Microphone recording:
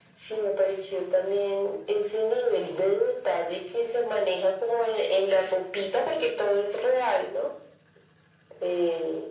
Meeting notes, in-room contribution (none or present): none